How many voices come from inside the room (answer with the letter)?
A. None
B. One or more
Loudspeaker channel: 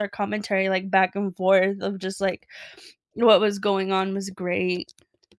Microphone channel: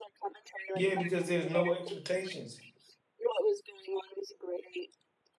B